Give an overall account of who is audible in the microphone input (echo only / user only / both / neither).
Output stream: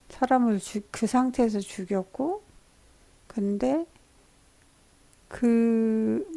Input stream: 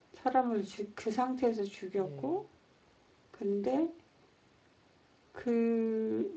both